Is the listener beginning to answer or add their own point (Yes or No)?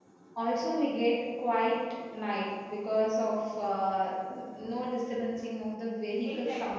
Yes